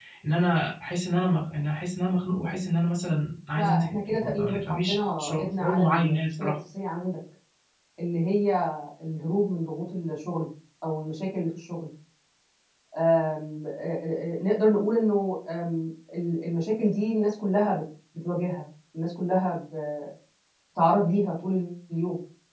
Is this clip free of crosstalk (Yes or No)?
No